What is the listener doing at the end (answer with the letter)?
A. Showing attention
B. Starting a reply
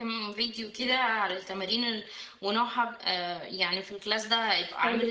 A